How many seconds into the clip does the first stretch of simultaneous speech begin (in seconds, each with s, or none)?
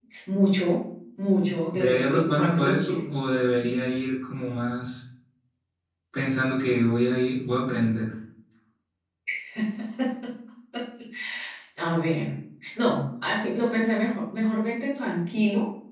1.7 s